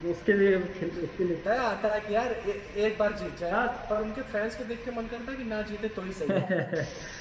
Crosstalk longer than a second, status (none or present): none